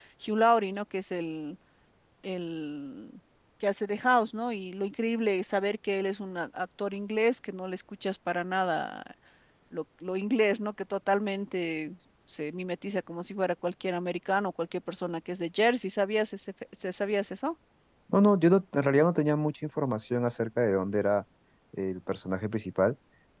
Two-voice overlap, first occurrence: none

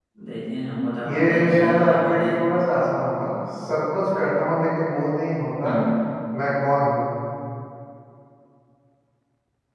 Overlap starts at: 1 s

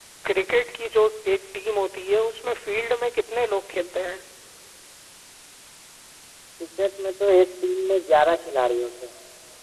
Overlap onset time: none

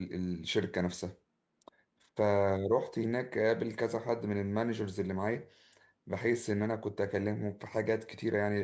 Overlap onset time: none

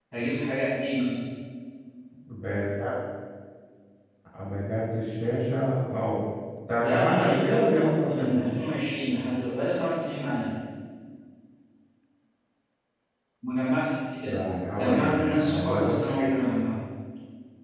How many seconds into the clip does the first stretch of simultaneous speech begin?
7 s

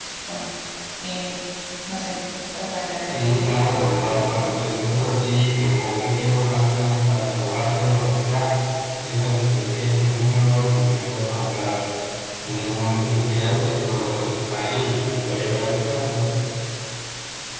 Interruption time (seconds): 3 s

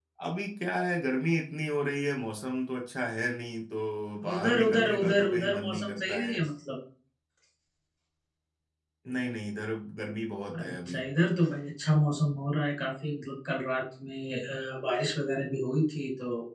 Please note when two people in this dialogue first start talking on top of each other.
4 s

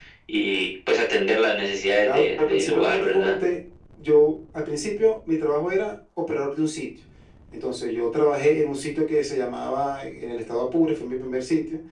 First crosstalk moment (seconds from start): 2 s

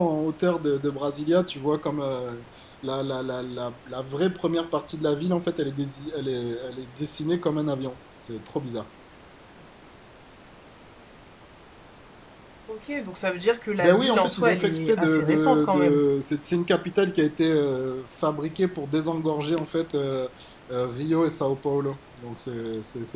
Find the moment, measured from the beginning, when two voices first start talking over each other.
14 s

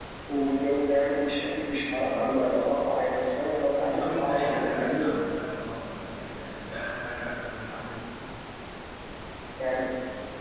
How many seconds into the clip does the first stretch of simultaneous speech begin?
4 s

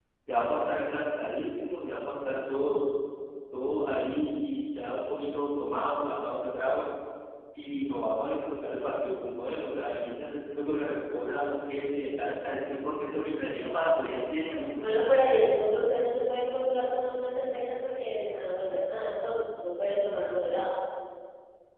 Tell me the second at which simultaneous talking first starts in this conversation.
none

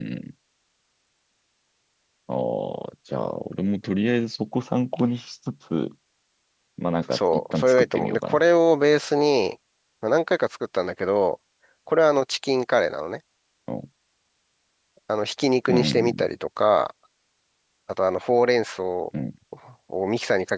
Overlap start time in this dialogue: 7 s

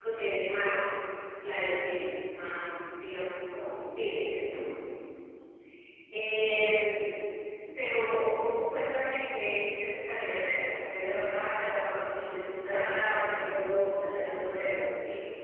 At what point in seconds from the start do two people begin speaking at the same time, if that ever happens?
13 s

